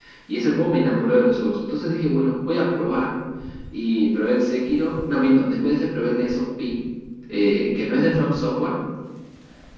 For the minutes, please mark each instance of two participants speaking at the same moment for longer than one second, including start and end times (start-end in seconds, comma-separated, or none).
none